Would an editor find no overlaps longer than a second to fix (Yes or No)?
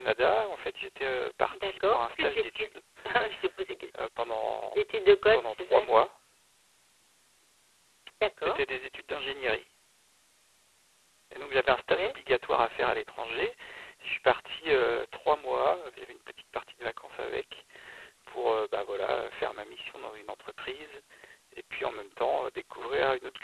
No